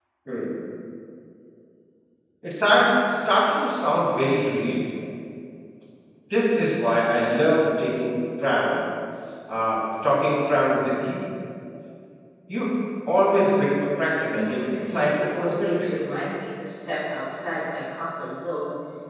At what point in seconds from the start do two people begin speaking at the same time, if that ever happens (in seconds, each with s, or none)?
14.3 s